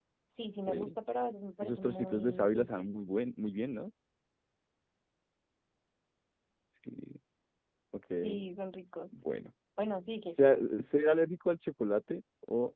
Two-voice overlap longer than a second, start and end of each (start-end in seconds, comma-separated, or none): 1.6-2.9